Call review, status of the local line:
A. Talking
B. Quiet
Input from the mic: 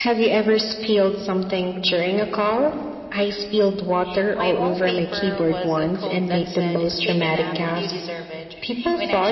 B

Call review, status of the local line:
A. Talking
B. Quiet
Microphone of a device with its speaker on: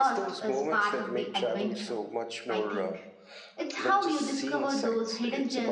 A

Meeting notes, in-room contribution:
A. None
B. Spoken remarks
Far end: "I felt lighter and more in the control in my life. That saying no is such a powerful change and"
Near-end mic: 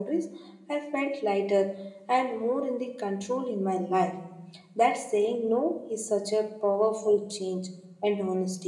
A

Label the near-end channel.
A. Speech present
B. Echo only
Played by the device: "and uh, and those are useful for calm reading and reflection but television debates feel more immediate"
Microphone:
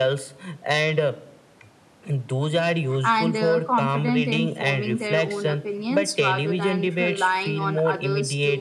A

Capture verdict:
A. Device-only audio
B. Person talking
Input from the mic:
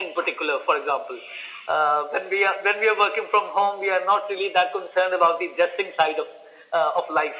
A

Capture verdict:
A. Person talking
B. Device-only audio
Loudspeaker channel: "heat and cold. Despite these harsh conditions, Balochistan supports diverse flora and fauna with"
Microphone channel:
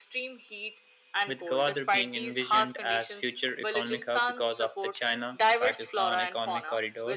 A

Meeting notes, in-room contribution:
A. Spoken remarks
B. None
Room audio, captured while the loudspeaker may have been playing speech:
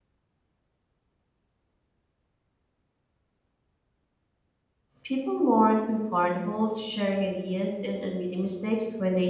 A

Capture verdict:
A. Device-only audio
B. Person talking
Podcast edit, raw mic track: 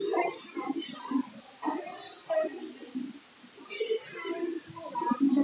A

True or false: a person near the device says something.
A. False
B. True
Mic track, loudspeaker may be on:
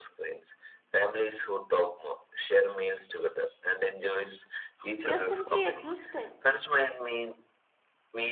B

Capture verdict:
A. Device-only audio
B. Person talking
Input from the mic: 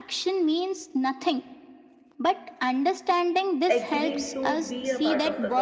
B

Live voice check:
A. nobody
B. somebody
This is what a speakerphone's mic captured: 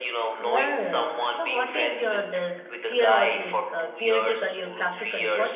B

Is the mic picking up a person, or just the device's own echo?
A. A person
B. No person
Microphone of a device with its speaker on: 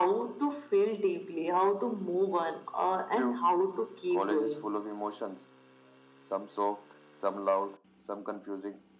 B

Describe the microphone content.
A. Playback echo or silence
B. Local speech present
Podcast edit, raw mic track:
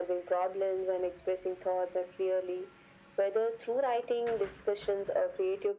A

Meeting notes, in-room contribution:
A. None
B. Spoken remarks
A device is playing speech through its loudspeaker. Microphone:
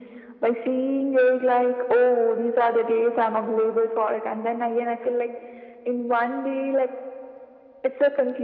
A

